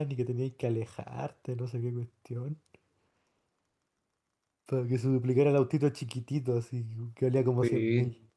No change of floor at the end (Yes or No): No